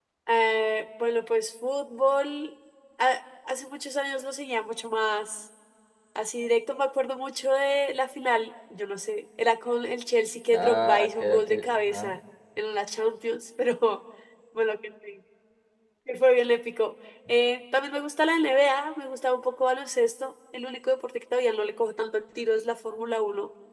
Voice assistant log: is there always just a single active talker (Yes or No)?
No